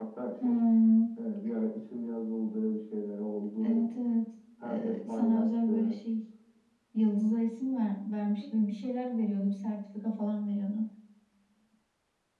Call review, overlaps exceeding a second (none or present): present